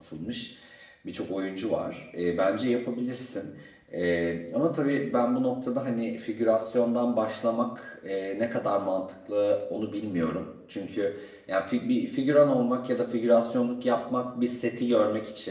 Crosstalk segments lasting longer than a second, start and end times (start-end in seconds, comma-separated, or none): none